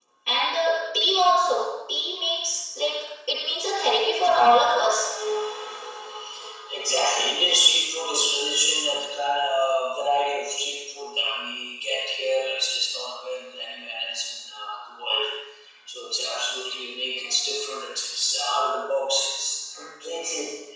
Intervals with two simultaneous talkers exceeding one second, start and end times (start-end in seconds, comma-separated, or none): none